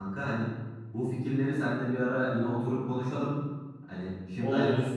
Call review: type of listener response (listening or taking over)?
listening